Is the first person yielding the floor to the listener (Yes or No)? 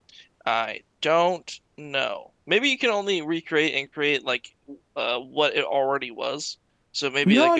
Yes